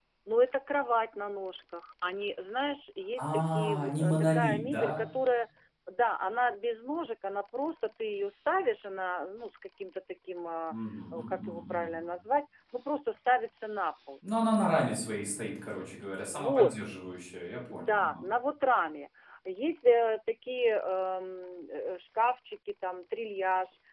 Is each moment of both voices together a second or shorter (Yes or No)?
No